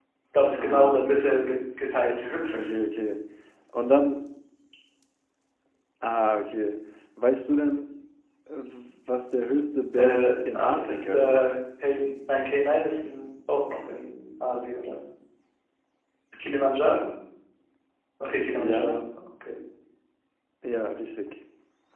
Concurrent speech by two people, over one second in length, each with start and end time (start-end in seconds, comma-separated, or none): 10.0-11.5